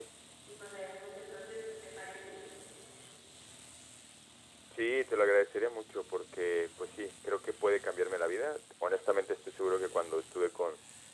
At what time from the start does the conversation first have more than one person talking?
none

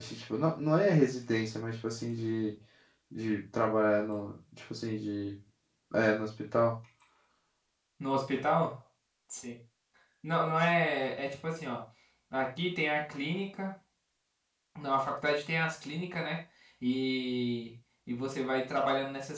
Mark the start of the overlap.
none

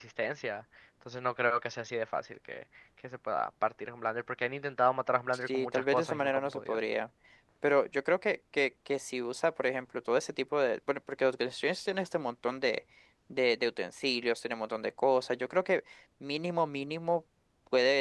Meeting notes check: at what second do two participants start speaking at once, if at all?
5.5 s

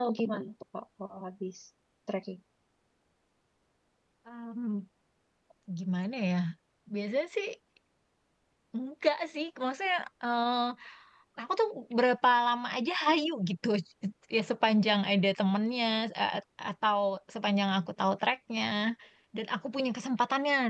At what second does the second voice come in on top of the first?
none

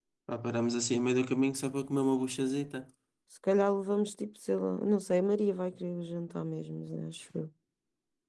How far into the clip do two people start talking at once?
none

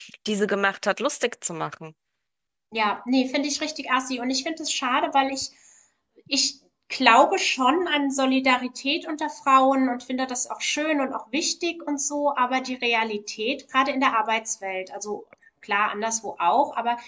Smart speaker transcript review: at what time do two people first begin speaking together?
none

